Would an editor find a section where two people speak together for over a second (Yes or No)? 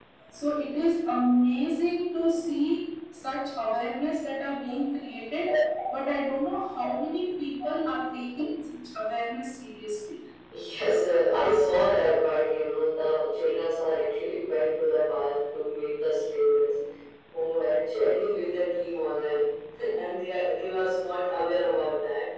No